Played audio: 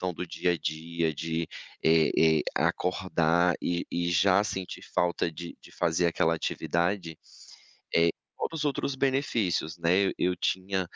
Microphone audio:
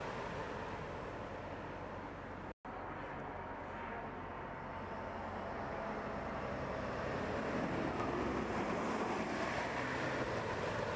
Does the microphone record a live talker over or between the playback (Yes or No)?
No